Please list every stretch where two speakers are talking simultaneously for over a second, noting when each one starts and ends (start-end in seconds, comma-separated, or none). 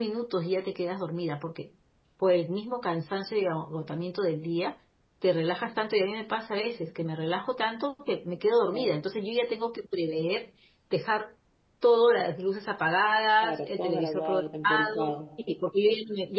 13.4-15.2